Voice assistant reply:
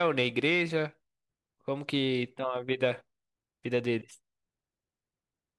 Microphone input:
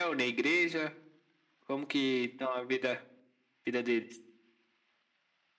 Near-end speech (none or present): none